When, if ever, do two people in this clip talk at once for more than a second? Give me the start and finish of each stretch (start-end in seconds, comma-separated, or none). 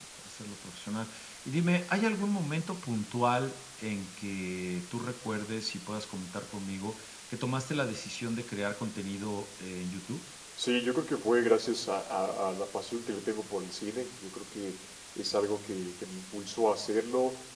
none